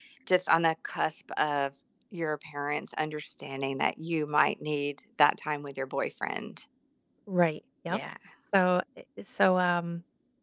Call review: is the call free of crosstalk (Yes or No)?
Yes